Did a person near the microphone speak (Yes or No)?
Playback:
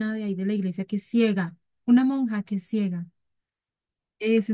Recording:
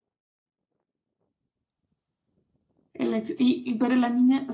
Yes